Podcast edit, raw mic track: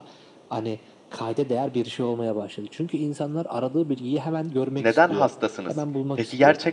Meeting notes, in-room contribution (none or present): present